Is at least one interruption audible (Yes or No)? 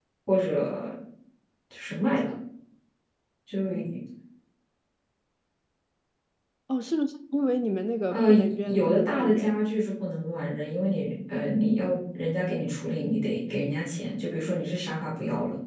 Yes